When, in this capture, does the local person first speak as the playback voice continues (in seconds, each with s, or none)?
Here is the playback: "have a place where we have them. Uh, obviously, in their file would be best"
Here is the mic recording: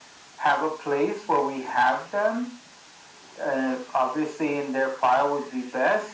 none